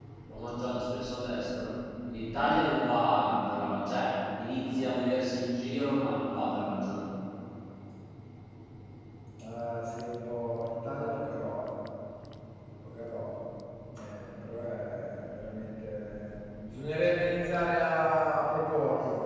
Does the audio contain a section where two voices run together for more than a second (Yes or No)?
No